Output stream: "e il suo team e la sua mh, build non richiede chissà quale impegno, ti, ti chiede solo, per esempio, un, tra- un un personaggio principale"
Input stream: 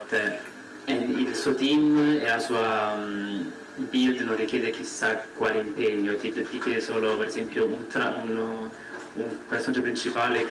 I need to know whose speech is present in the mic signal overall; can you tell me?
echo only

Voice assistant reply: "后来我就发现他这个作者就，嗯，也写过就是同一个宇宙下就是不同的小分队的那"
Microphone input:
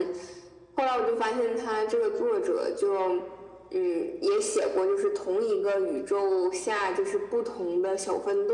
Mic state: echo only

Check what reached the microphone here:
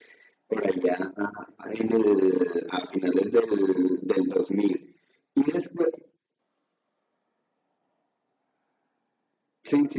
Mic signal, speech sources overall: echo only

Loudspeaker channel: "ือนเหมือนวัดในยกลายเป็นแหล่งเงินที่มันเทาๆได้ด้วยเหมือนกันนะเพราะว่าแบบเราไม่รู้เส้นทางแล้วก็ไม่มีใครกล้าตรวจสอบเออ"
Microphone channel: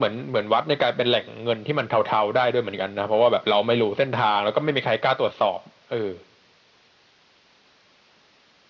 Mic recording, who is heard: echo only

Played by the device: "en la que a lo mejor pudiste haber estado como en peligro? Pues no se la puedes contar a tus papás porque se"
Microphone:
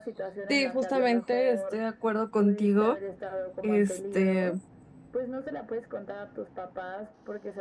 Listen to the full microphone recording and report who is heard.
both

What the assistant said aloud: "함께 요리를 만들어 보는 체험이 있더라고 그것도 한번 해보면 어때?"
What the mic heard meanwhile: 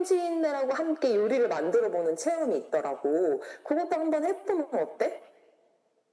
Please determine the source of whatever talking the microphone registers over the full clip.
echo only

